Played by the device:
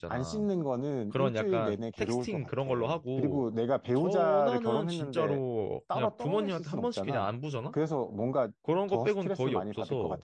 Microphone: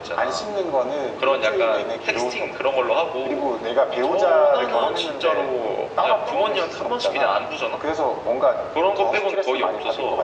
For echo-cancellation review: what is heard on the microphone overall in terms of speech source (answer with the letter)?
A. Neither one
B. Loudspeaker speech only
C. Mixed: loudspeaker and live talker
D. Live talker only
B